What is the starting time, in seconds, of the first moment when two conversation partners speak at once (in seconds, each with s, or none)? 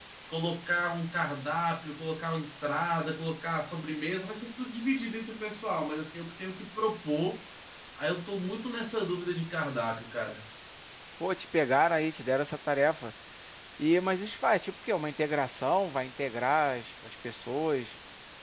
none